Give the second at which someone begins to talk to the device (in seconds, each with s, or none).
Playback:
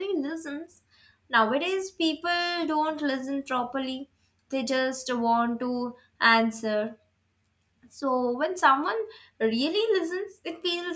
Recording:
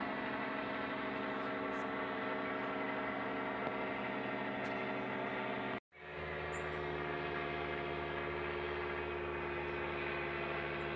none